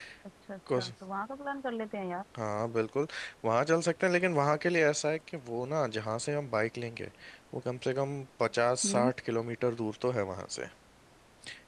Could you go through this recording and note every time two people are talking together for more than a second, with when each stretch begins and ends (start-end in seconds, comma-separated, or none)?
none